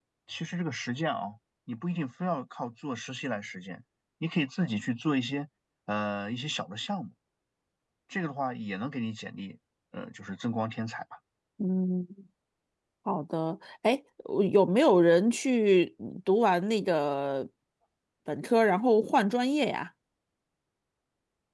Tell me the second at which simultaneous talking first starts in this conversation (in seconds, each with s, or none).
none